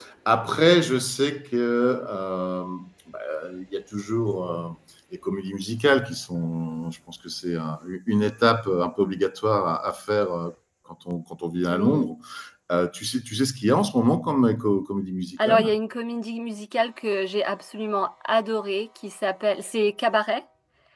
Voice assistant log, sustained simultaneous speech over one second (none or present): none